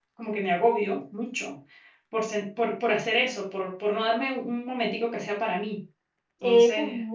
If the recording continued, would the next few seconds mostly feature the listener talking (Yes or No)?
Yes